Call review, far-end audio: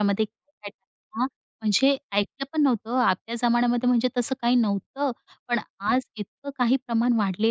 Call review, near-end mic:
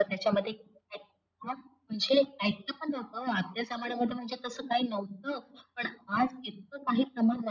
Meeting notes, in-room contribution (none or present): none